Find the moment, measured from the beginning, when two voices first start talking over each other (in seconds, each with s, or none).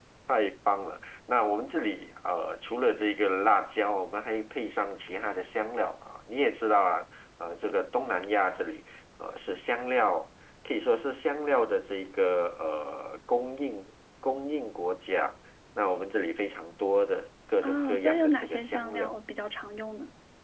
17.6 s